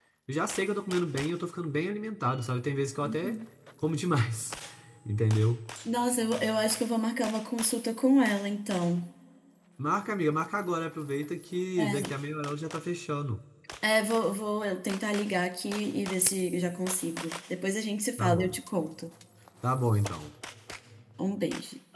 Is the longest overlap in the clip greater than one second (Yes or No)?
No